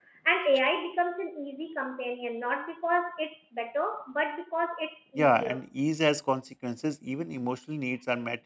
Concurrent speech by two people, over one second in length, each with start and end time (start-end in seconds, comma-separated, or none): none